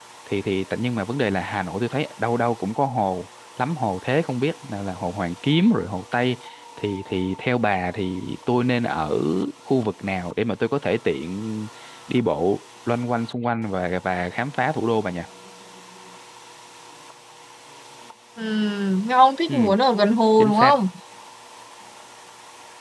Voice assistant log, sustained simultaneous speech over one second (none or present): none